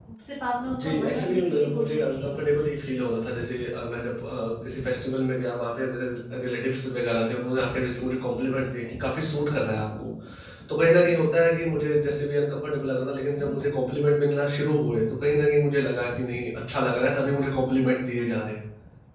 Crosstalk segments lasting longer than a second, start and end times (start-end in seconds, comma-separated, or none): 0.8-2.6